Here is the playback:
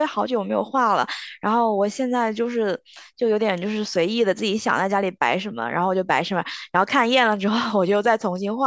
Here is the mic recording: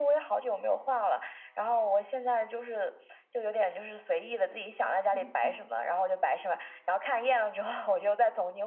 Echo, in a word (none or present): present